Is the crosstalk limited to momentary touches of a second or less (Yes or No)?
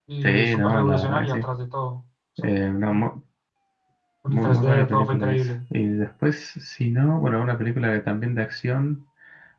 No